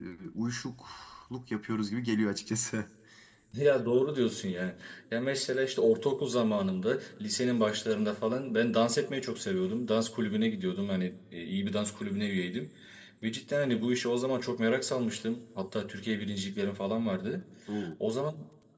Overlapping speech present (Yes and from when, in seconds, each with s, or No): No